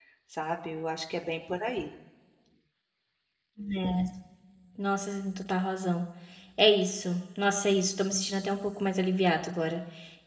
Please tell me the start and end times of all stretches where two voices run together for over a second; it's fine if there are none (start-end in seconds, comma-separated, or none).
none